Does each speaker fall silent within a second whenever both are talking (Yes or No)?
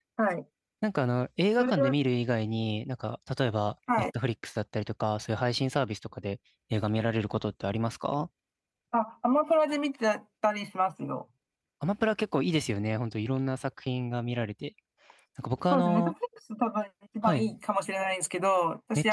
Yes